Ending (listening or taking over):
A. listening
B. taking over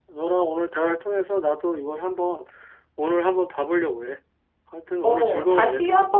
B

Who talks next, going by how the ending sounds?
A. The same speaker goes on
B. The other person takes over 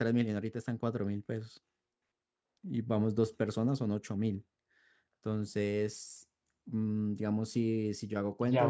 B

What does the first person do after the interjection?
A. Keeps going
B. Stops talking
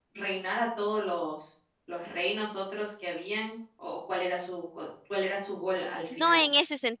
B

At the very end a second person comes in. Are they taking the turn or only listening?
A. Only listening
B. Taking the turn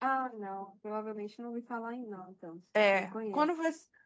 B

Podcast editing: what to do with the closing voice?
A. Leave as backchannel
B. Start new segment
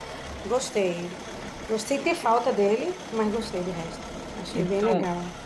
B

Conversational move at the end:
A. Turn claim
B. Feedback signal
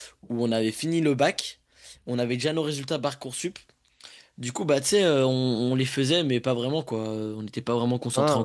A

